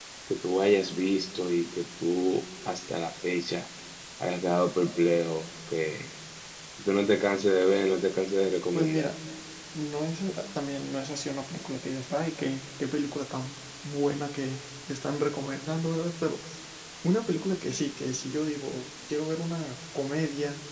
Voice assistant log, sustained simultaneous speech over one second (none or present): none